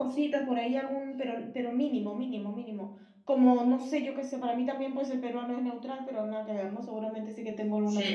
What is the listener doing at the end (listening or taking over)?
taking over